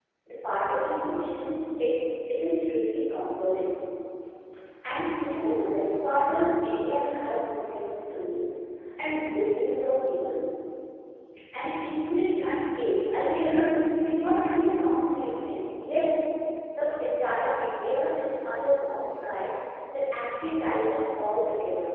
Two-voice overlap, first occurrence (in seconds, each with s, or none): none